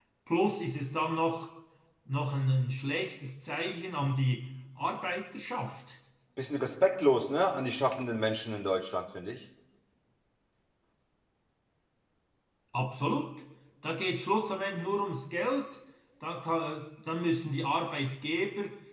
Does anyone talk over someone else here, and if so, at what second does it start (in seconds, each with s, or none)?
none